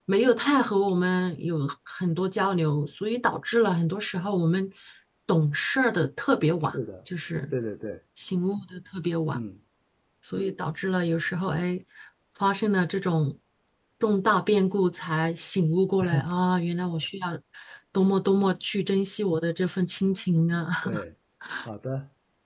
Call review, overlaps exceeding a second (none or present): none